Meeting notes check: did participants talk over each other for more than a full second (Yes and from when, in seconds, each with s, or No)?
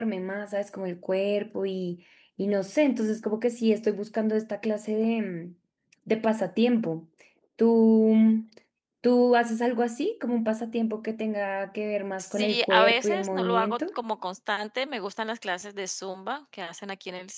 Yes, from 12.2 s